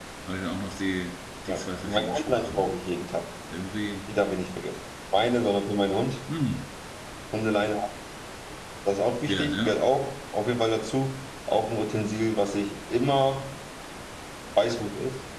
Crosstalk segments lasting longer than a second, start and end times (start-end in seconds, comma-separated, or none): 1.5-2.7